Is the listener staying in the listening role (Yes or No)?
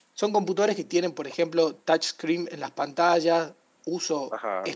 Yes